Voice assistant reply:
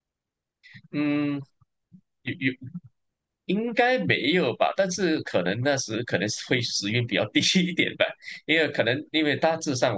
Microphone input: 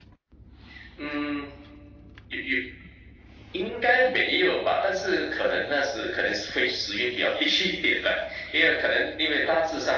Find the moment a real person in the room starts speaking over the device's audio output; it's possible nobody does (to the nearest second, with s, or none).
none